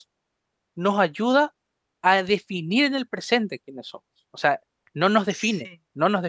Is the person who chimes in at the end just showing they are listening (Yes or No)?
Yes